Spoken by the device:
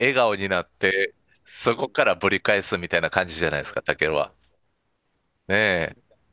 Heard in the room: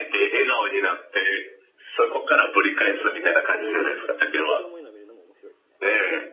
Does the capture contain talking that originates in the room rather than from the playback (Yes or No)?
Yes